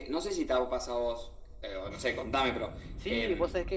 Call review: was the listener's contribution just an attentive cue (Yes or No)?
No